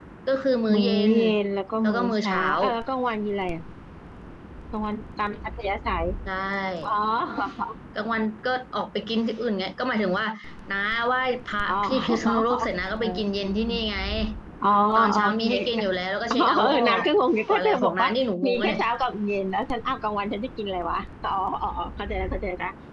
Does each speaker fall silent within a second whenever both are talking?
No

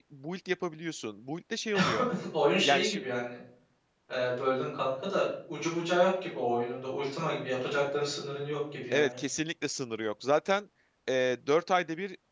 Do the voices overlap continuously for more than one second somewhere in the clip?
No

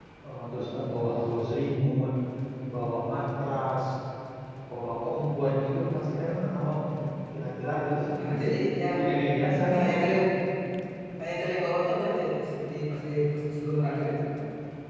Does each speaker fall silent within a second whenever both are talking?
Yes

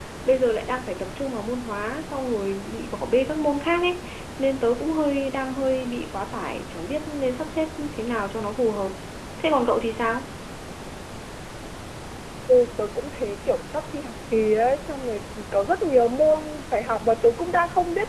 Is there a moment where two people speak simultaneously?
No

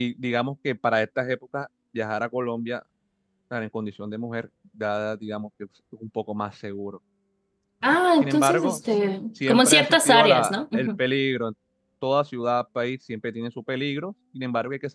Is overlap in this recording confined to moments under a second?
No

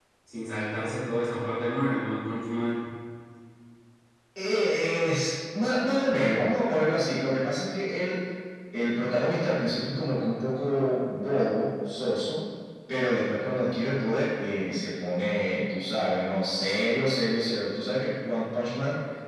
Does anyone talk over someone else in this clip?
No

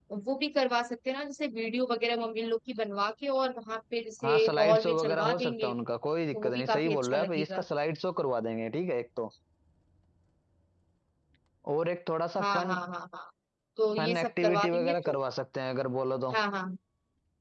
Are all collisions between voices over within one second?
No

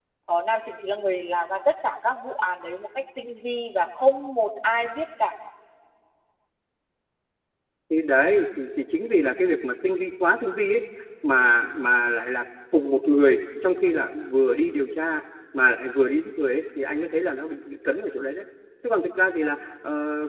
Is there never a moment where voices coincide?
Yes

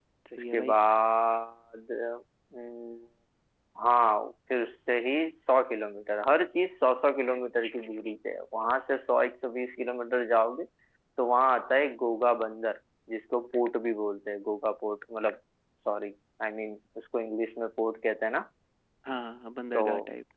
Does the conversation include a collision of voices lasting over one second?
No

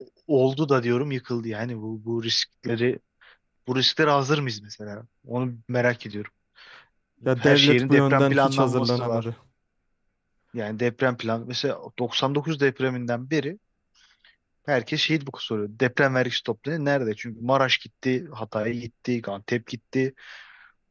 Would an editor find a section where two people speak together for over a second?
Yes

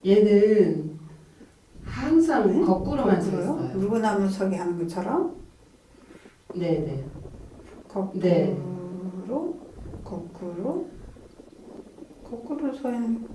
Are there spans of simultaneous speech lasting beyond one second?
Yes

